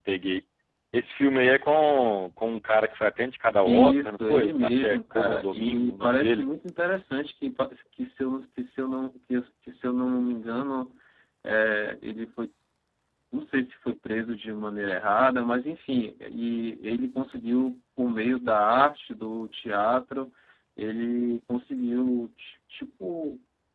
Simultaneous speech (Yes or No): Yes